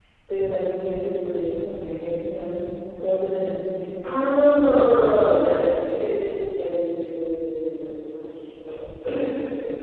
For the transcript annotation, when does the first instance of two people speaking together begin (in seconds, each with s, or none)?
4.0 s